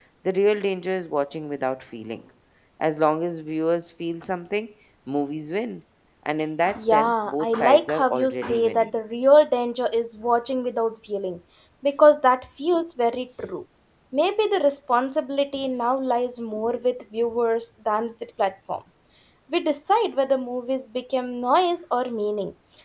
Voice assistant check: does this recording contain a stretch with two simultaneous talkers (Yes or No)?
Yes